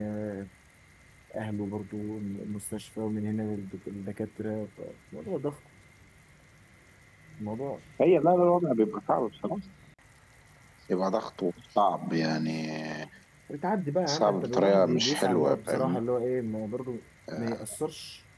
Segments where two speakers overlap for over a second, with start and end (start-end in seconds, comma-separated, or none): 14.1-16.0